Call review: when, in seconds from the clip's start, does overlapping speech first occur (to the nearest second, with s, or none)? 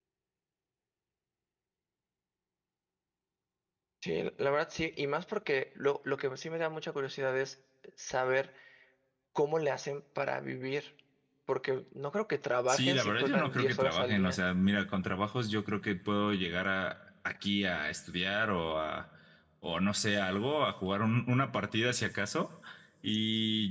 13 s